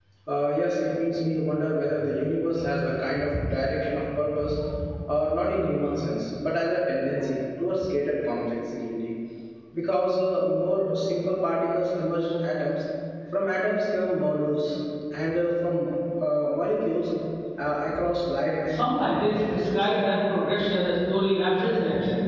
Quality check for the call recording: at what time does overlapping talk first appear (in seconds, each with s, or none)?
18.6 s